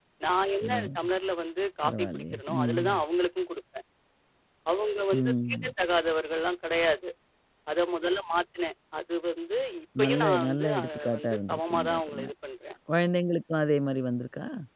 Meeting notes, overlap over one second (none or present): present